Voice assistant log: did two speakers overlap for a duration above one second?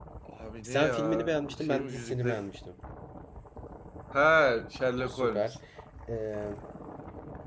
Yes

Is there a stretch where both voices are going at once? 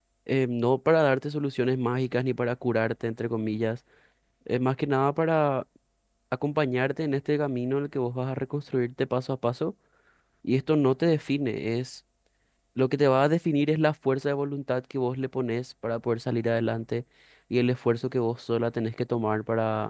No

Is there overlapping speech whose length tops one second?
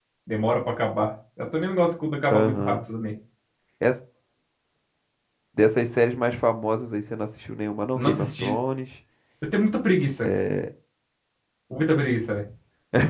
No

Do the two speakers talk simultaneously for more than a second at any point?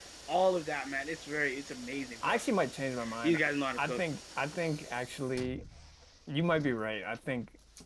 No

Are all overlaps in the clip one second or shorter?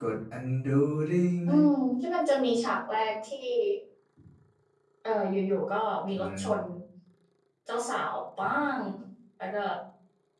Yes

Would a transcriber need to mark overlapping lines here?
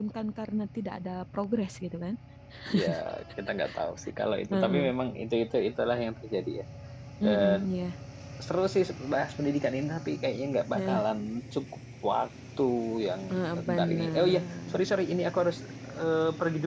Yes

